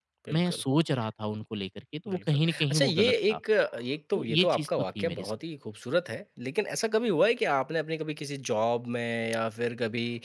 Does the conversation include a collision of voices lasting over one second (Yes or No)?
Yes